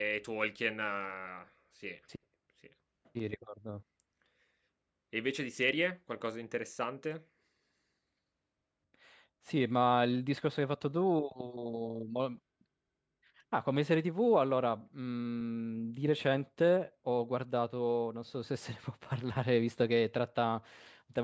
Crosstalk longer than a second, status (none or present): none